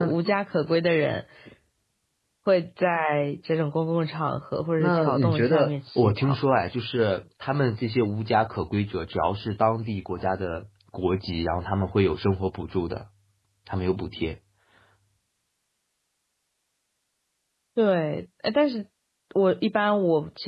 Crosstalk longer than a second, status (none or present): present